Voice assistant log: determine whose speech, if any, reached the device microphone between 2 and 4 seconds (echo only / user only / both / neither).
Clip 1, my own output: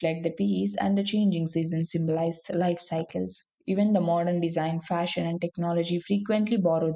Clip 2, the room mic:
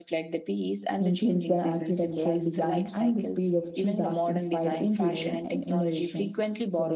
both